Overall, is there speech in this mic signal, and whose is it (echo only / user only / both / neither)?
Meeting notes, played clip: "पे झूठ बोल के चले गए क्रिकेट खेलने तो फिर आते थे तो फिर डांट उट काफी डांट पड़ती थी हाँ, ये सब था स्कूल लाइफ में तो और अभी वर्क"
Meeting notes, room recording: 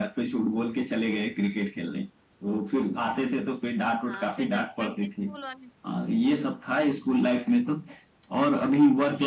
both